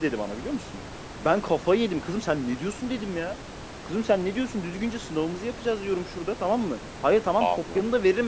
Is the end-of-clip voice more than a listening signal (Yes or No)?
No